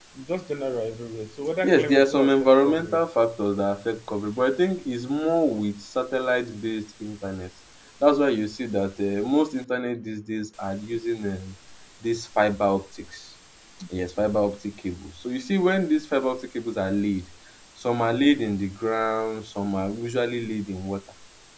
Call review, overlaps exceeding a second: present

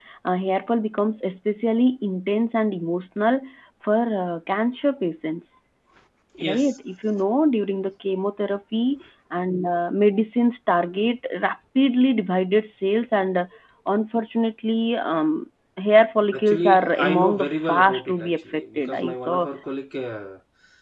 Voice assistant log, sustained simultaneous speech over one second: present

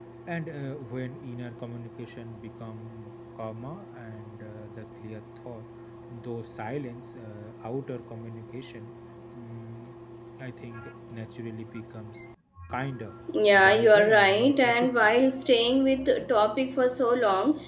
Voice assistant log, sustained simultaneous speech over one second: present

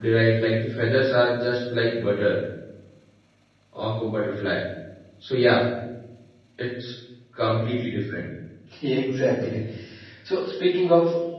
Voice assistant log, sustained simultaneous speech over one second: none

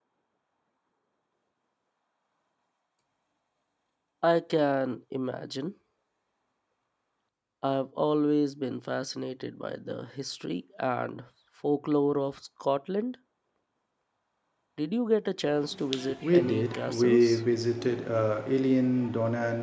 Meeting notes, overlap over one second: present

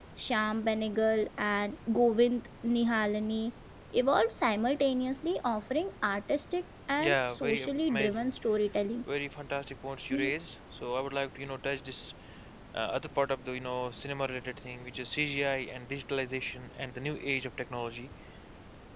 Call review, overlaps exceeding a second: present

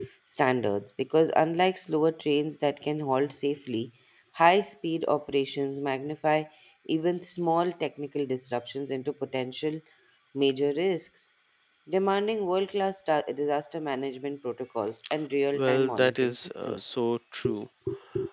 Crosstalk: present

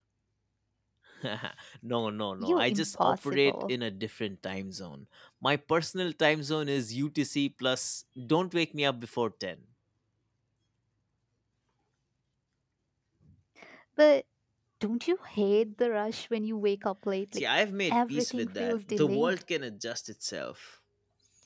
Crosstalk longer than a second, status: present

